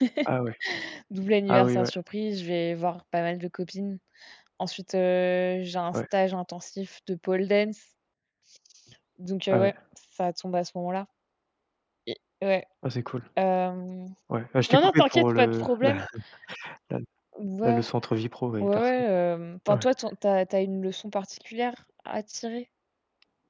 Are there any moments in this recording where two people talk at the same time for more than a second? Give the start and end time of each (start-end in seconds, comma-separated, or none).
14.7-16.0